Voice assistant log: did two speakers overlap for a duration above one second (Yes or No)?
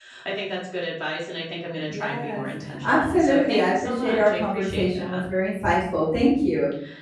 Yes